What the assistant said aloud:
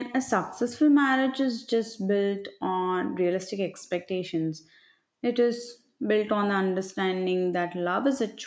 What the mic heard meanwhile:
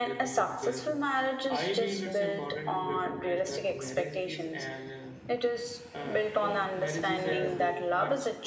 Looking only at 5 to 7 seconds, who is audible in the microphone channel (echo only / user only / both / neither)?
both